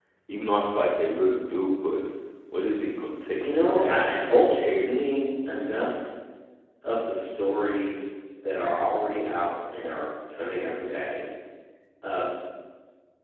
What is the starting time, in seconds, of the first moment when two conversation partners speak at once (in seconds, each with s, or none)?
3.4 s